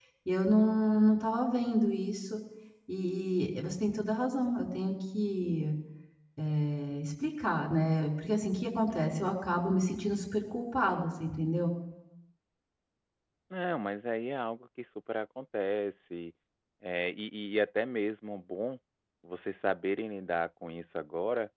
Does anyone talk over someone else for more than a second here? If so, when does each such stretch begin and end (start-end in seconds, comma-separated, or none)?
none